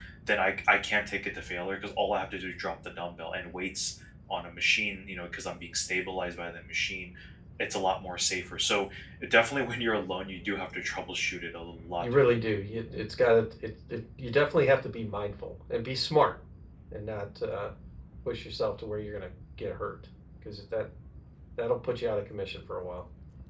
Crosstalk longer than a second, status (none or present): none